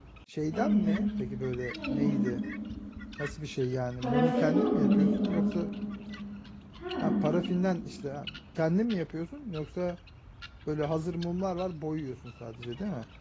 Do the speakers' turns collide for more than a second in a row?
Yes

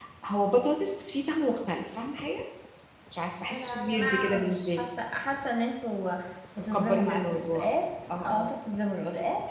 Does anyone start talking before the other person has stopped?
Yes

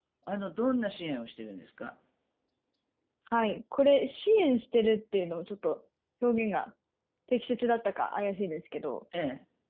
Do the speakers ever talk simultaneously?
No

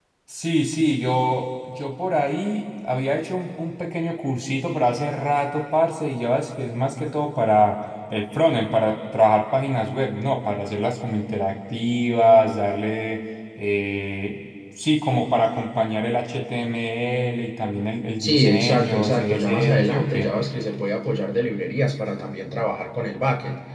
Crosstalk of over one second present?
Yes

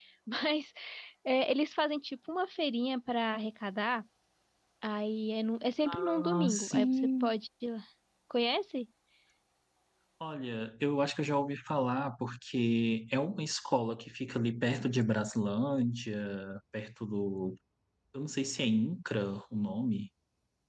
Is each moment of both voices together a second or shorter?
No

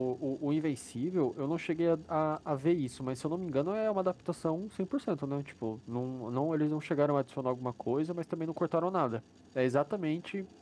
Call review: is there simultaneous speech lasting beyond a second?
No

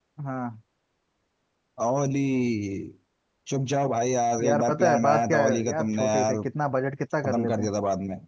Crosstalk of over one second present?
Yes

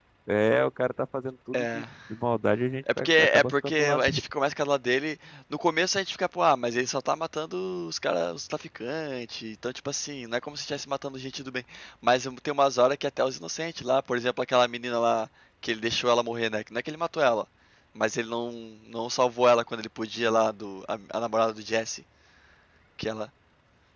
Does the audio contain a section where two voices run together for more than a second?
Yes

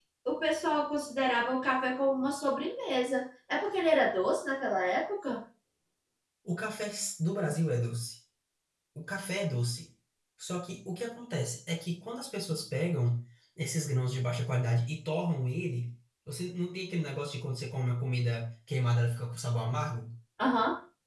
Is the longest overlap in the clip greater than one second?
No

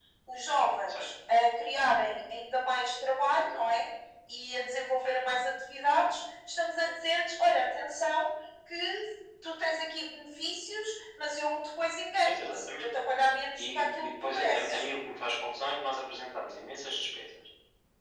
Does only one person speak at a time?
No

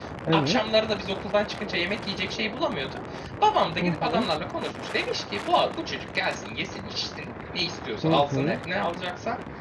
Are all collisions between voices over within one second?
Yes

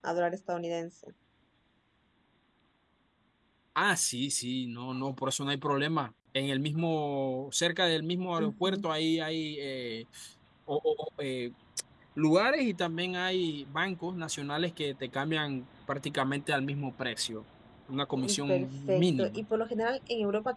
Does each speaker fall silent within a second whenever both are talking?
No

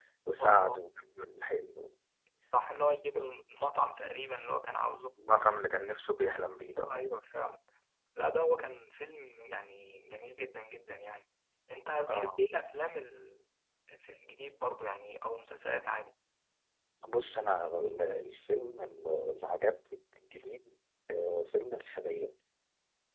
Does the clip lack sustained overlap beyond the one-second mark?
Yes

